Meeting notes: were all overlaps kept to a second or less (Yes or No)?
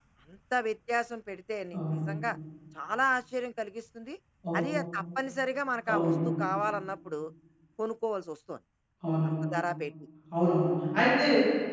Yes